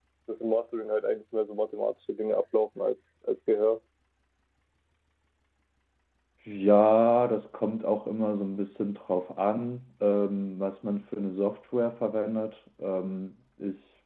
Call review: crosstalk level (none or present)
none